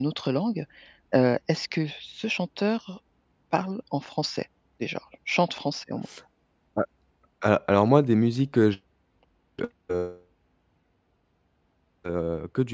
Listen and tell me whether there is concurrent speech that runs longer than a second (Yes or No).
No